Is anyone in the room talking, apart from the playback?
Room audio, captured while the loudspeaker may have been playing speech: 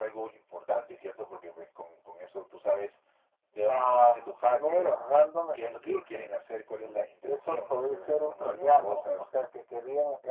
No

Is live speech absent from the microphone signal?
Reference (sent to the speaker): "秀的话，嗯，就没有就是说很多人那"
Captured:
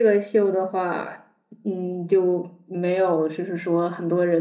Yes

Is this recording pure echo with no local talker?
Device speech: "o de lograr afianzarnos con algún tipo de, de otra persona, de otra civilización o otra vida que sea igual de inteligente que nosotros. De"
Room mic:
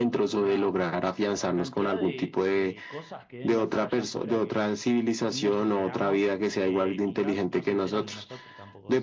No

